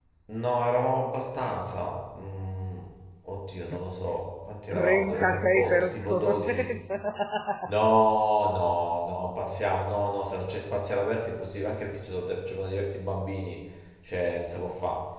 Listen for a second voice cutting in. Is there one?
Yes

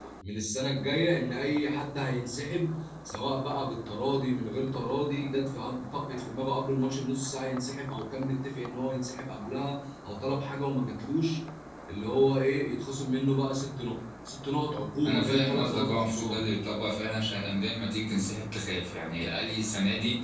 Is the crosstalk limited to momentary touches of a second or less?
No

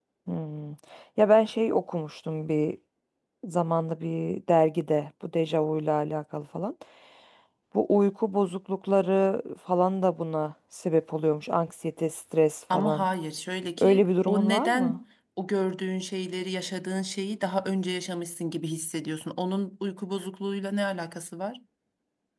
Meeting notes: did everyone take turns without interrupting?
No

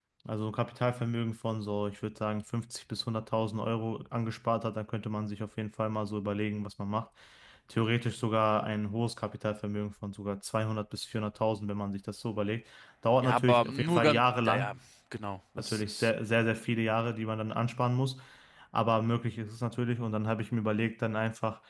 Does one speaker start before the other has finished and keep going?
Yes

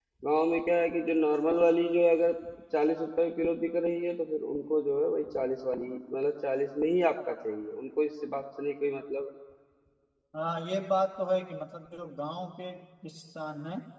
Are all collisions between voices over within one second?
Yes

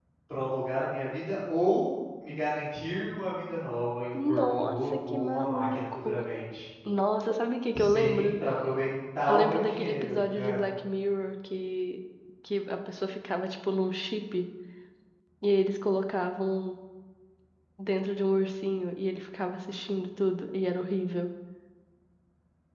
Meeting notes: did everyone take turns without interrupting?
No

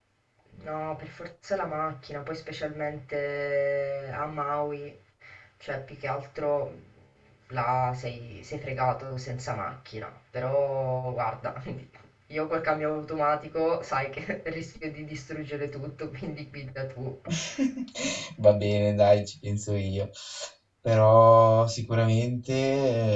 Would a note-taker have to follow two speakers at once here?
No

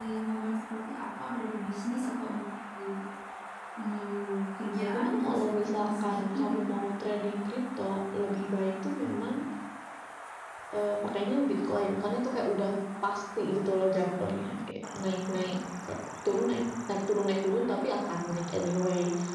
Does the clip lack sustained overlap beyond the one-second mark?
No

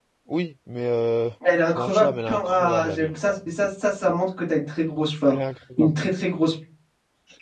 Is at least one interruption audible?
Yes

